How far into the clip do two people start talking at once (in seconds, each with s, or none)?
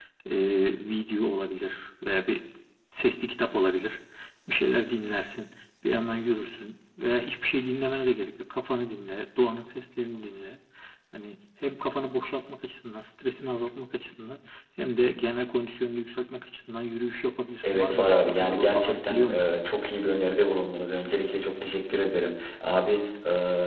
17.6 s